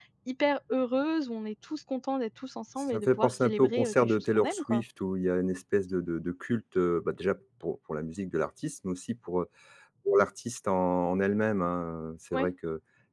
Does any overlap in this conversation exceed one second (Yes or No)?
Yes